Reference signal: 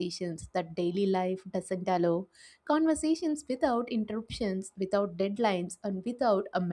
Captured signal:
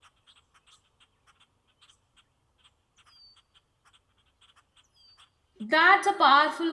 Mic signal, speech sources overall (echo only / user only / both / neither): user only